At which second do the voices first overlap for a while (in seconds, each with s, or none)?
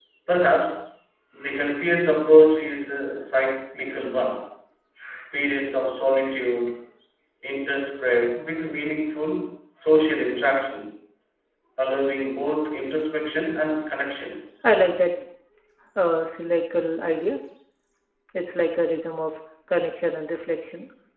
none